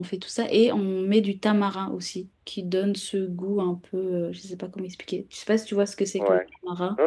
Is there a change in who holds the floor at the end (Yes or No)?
Yes